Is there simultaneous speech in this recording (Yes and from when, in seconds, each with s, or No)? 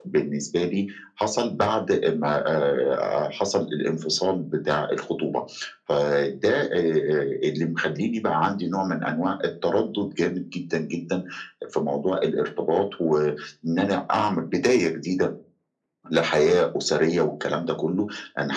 No